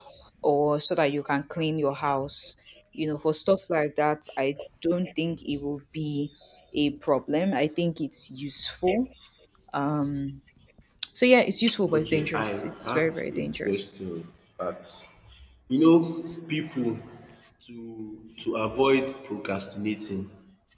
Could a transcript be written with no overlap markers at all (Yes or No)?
No